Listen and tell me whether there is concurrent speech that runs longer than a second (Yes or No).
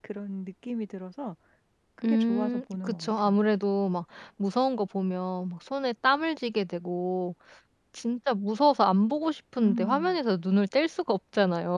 Yes